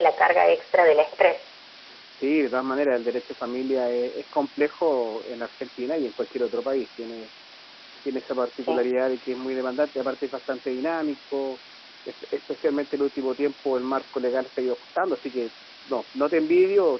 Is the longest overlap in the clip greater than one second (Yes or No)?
No